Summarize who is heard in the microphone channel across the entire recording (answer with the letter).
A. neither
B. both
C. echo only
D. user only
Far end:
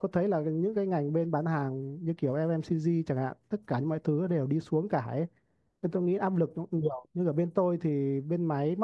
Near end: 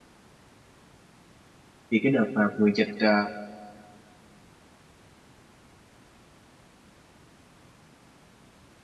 D